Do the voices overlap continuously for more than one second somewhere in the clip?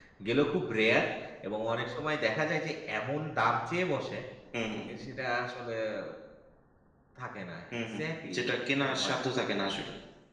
Yes, from 7.7 s

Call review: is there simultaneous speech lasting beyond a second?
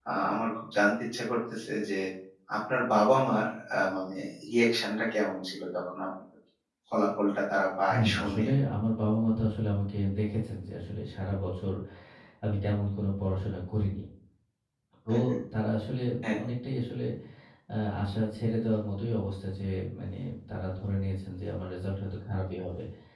No

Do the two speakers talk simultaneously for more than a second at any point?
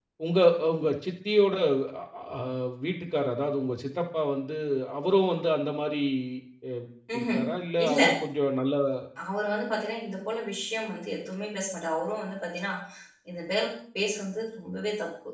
No

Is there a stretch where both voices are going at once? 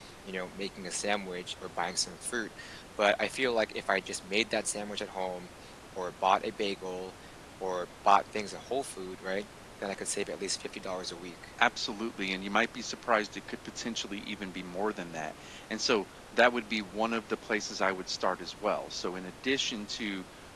No

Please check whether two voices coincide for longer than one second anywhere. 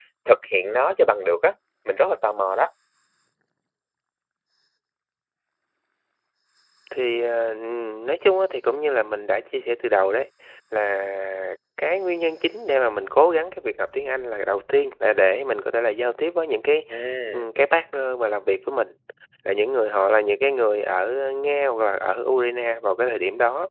No

